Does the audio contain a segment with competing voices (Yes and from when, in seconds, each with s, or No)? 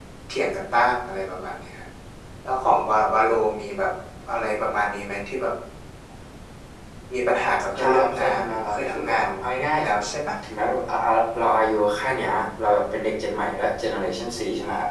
Yes, from 7.8 s